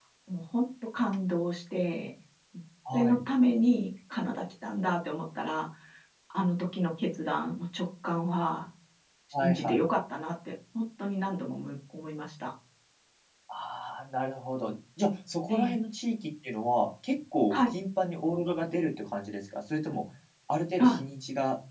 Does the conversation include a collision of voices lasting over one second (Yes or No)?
No